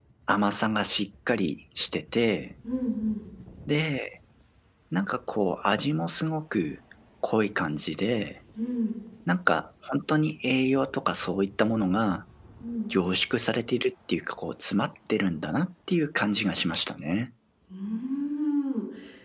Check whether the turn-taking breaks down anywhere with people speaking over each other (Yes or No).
No